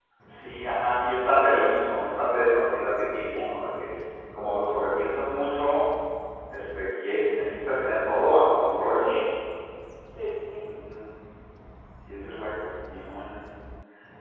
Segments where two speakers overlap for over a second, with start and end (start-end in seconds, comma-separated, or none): none